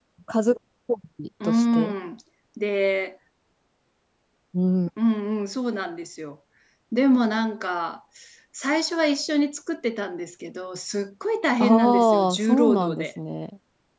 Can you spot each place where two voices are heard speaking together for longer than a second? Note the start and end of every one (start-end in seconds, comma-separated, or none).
11.6-13.0